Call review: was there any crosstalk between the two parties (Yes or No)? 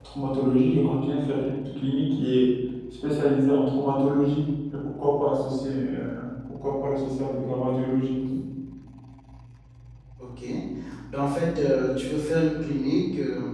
No